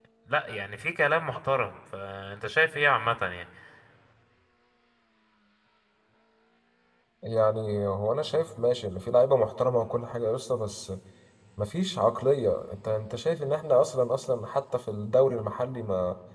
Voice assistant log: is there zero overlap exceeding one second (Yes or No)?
Yes